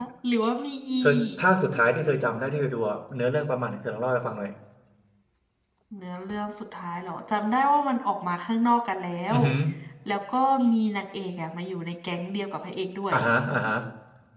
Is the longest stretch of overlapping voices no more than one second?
Yes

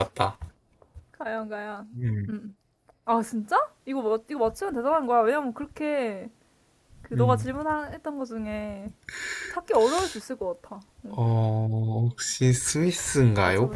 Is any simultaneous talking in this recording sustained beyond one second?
No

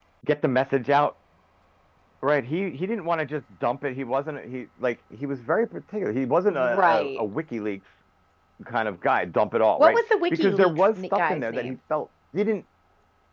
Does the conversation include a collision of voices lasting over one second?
Yes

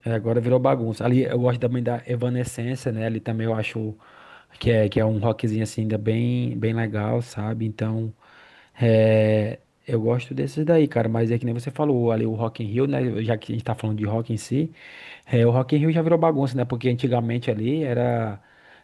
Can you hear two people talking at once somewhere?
No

